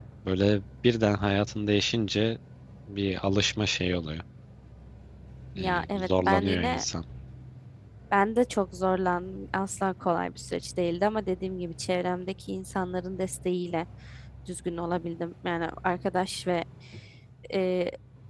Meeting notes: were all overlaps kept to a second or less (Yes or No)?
No